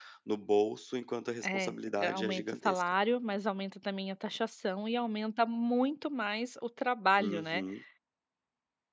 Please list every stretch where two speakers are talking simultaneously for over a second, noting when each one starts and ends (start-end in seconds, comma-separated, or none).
1.4-2.9